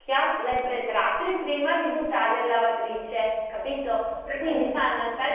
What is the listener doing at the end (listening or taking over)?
listening